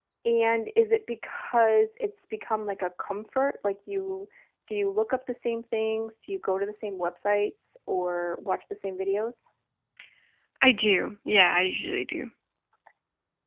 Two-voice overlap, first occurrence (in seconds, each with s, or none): none